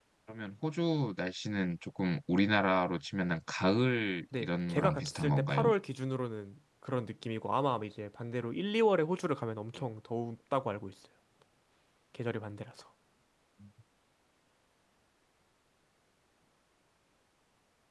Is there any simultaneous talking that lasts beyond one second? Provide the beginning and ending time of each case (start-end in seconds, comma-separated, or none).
4.3-5.7